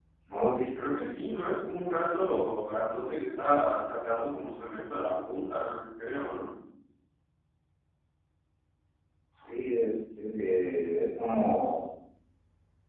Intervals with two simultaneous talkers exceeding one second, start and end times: none

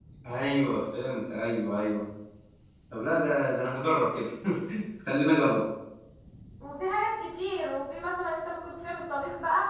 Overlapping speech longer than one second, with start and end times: none

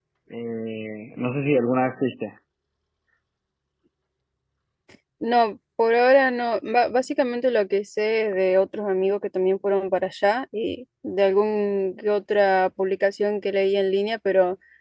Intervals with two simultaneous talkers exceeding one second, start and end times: none

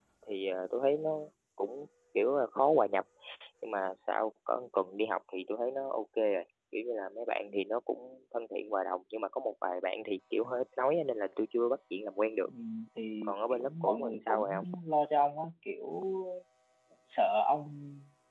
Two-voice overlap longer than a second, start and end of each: 13.3-14.6

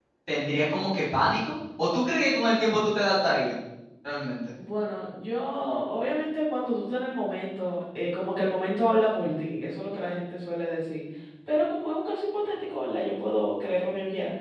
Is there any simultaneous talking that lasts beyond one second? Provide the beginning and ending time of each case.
none

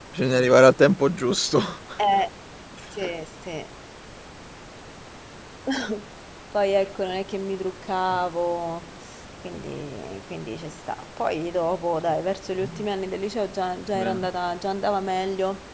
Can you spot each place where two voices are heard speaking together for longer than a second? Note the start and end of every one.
none

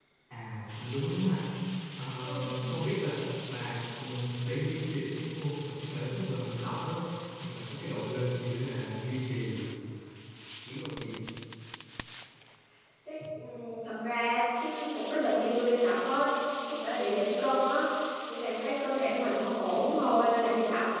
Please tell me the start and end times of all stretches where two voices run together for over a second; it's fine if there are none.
none

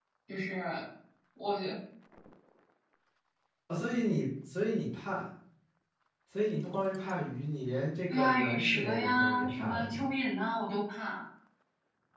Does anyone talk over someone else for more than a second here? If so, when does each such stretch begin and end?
8.1-10.1

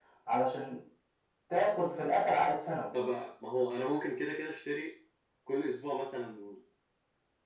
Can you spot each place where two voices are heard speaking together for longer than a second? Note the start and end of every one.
none

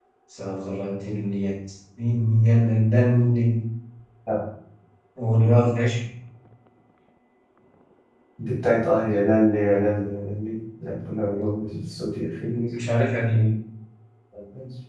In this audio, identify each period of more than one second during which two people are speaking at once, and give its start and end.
none

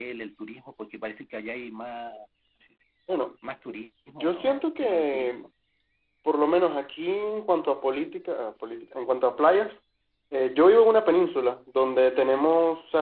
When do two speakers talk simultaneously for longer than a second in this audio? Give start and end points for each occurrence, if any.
4.2-5.4

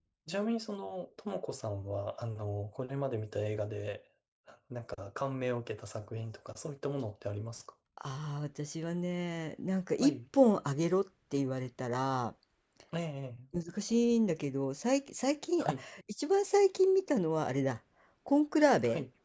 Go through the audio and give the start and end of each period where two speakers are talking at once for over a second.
none

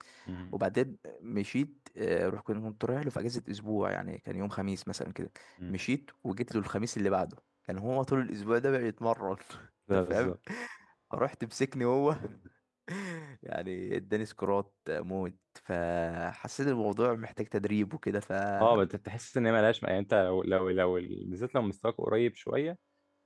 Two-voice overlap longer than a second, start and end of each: none

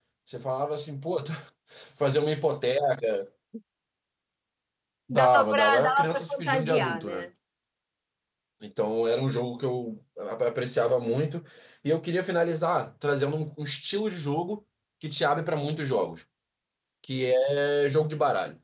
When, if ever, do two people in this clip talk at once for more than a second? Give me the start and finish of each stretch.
5.1-7.3

